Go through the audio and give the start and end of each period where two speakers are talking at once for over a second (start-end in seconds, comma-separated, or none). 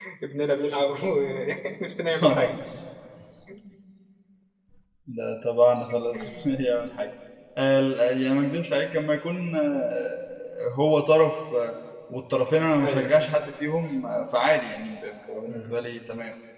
none